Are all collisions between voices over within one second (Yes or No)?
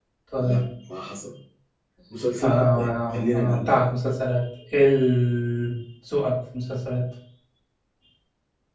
No